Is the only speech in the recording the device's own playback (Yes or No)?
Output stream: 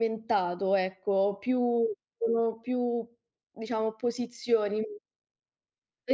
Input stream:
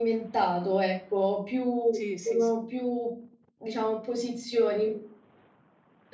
No